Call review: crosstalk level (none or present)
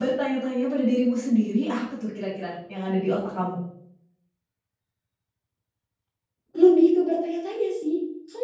none